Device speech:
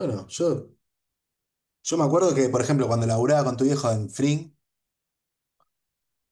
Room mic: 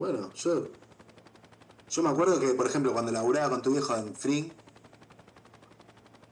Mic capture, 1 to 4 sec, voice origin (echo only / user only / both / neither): echo only